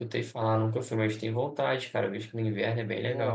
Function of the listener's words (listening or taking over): taking over